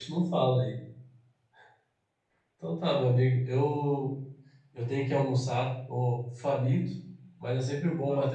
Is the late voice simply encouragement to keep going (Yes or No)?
Yes